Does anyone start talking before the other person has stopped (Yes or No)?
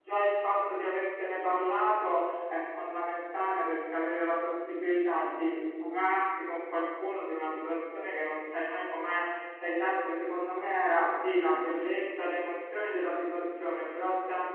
No